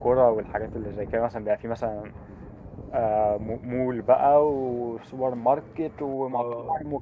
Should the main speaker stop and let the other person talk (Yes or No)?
Yes